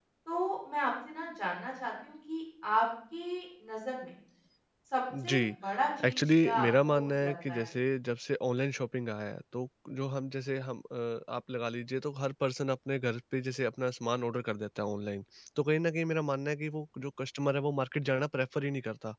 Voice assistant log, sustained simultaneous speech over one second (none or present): present